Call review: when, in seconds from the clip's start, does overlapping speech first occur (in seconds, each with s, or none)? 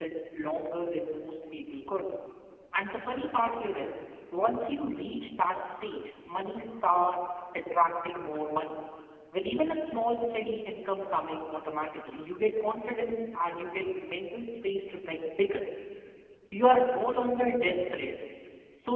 none